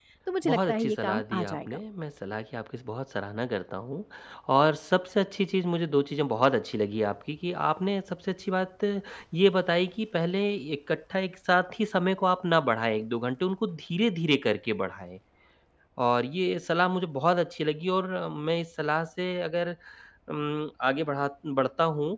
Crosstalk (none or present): present